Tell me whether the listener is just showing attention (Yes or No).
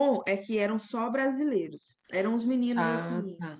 Yes